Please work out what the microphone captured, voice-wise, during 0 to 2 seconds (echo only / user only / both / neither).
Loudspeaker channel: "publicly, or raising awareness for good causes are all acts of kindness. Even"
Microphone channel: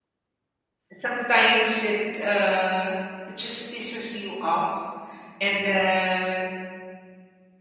user only